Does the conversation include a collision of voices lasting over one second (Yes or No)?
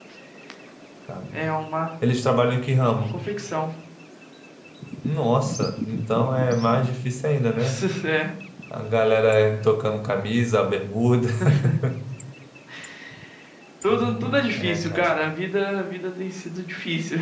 Yes